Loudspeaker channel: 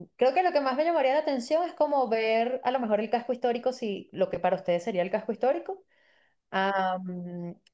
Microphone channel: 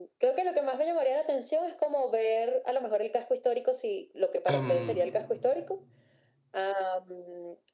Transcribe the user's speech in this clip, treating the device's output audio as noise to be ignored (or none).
Am,